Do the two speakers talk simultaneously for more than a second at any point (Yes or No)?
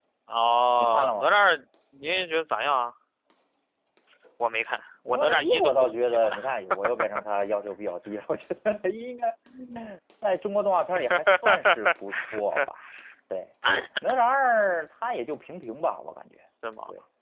Yes